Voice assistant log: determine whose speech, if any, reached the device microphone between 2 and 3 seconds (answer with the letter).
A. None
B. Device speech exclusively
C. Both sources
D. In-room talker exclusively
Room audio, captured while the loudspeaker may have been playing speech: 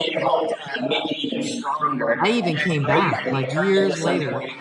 C